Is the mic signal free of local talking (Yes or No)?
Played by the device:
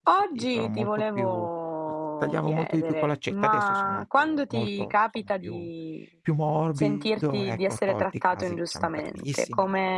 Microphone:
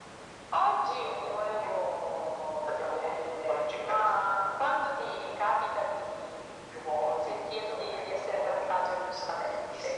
Yes